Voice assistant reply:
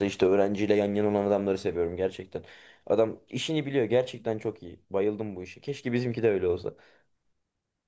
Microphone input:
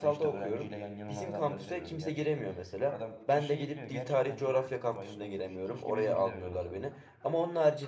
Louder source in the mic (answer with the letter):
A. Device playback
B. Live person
B